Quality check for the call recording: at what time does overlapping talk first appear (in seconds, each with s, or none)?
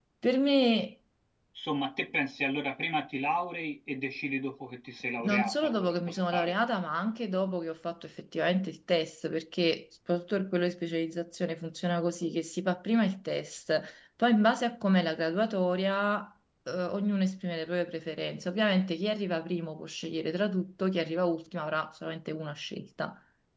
5.2 s